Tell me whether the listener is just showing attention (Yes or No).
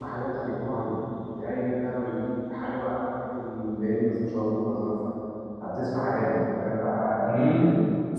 No